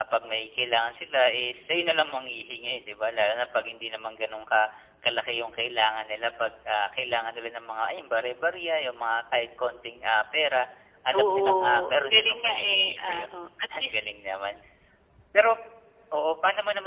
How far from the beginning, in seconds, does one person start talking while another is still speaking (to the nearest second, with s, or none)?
11 s